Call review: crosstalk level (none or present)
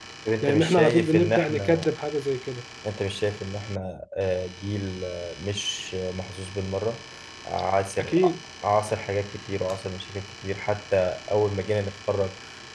present